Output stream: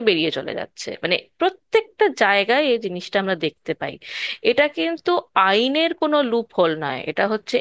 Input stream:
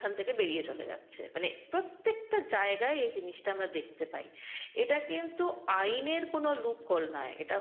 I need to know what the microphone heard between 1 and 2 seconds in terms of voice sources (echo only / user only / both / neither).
echo only